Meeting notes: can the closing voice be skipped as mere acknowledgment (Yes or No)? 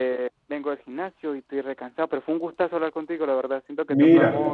Yes